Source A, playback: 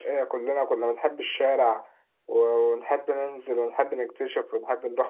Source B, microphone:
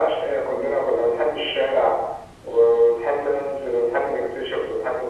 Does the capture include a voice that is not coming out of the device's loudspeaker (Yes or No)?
No